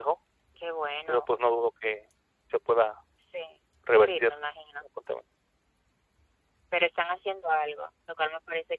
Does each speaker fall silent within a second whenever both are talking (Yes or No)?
Yes